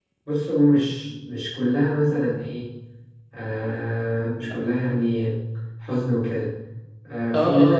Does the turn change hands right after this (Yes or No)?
Yes